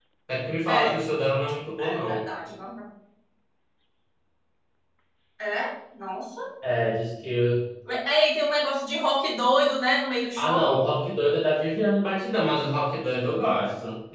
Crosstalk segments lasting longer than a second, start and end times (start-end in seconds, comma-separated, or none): none